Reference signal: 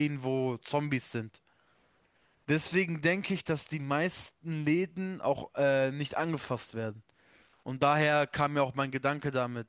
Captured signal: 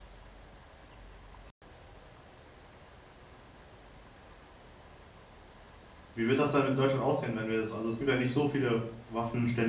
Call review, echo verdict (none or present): none